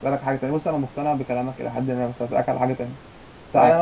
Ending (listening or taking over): listening